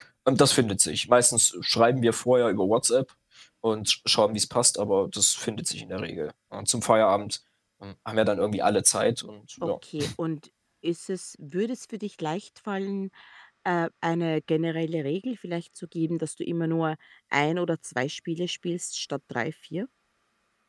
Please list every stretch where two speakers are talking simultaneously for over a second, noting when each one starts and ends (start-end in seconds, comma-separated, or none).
none